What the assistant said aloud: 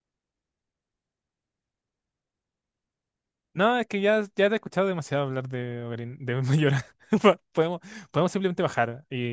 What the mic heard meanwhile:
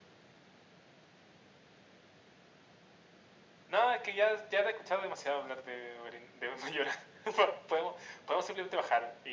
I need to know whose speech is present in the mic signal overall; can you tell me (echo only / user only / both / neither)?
echo only